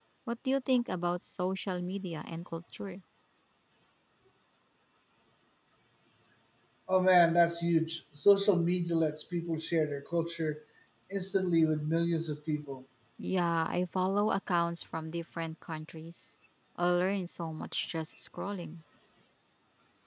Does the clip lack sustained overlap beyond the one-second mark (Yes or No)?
Yes